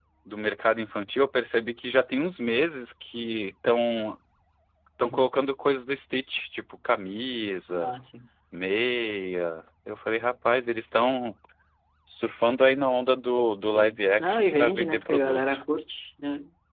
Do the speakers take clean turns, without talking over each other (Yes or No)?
No